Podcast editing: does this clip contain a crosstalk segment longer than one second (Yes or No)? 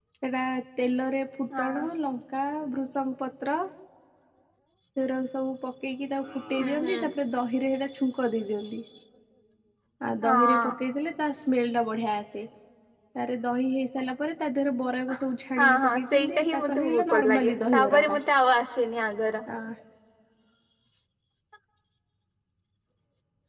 Yes